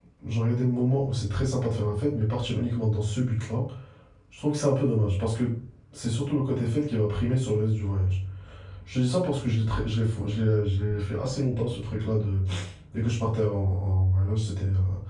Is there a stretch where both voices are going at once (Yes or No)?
No